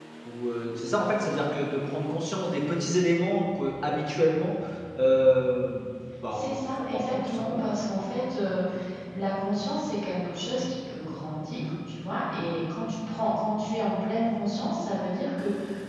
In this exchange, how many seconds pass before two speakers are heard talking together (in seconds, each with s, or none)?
6.3 s